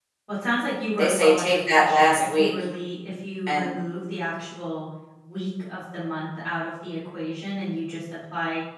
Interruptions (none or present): present